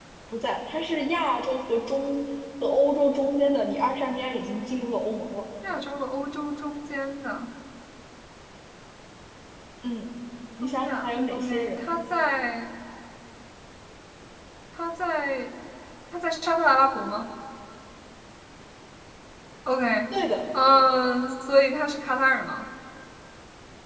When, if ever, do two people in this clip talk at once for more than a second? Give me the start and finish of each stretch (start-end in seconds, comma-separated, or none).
10.6-11.9